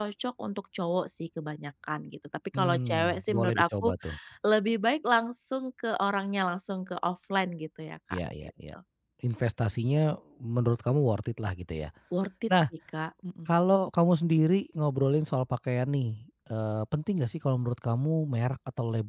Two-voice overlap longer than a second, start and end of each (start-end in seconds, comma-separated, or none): 2.6-3.9